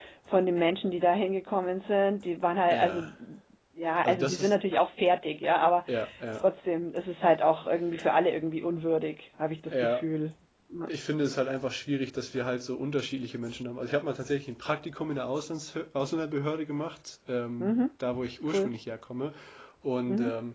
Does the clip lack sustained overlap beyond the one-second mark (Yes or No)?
Yes